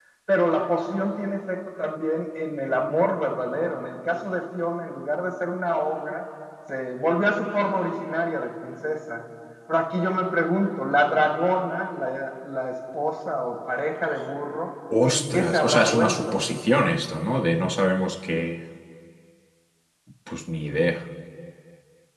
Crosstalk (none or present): present